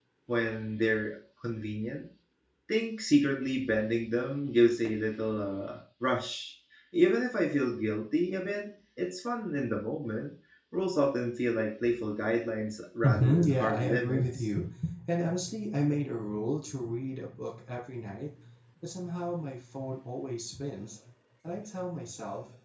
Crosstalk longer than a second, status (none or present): present